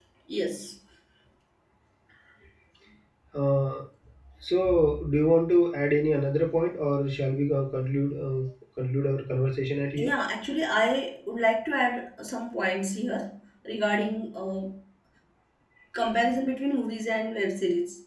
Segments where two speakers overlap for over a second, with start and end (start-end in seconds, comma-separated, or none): none